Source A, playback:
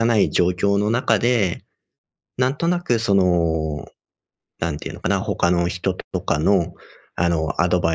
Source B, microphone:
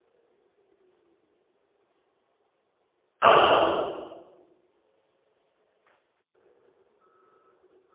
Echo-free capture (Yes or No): Yes